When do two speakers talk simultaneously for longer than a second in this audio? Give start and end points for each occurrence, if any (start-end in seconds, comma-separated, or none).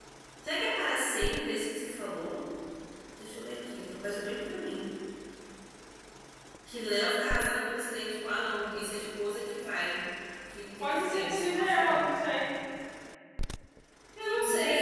10.8-12.0